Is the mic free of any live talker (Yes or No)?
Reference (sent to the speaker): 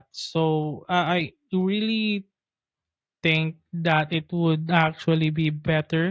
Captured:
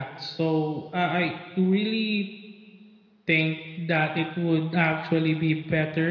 Yes